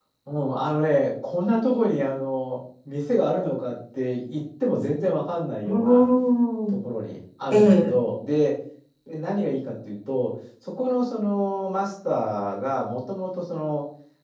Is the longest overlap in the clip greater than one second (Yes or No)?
No